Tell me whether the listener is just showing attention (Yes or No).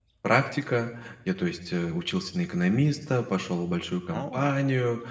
Yes